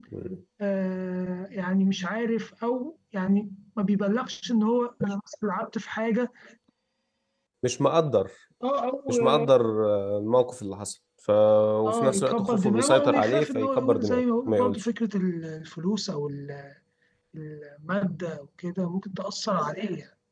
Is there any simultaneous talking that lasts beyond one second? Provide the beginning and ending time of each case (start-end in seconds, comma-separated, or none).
11.8-14.8